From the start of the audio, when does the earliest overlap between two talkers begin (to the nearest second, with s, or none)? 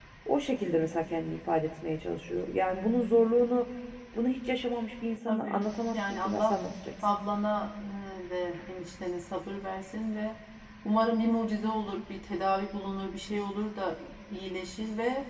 5 s